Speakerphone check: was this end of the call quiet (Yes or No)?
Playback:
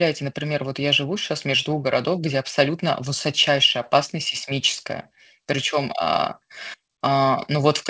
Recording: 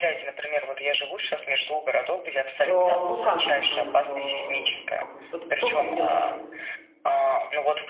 No